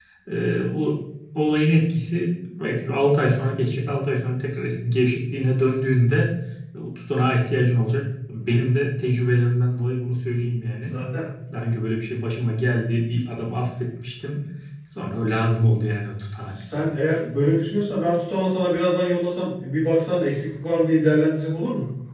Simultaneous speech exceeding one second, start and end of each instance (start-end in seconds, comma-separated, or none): none